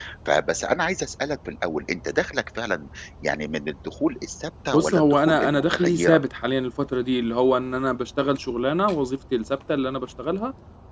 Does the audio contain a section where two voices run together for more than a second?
Yes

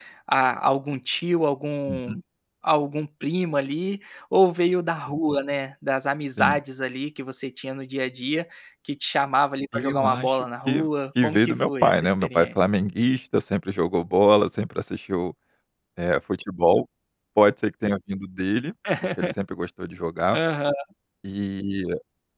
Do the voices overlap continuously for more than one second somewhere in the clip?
Yes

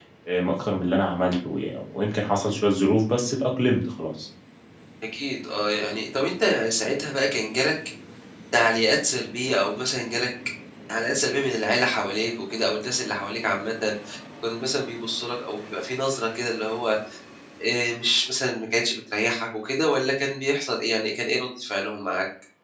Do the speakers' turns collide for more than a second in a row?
No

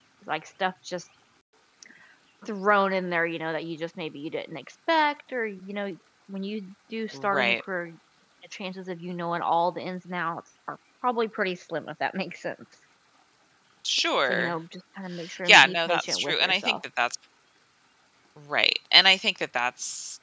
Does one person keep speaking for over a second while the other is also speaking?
Yes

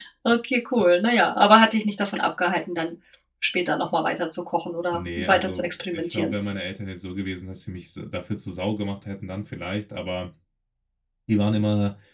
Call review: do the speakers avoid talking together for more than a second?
No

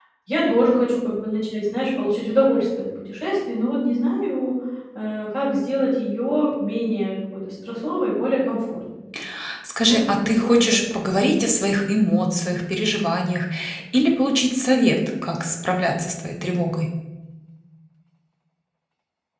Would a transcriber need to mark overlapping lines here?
Yes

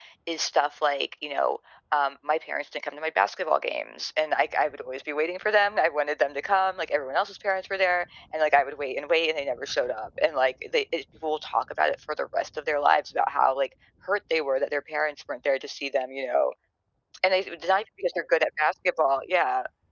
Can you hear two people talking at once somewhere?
No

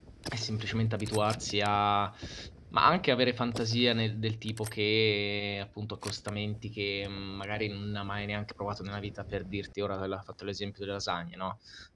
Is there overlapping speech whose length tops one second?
No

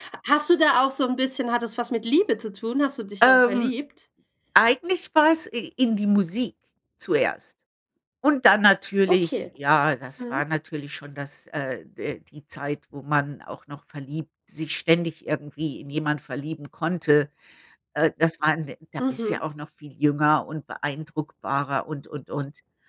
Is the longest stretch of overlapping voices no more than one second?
Yes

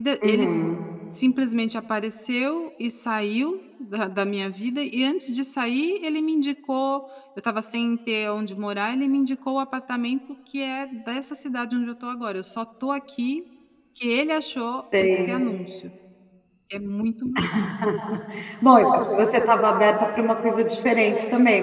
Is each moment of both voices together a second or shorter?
Yes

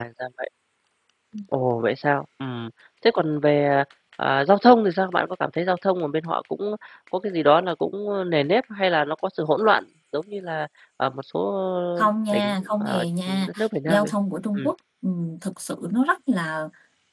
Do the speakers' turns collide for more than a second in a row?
Yes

